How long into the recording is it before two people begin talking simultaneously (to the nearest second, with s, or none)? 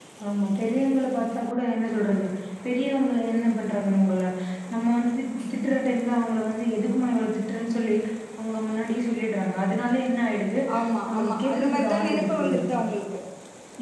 11 s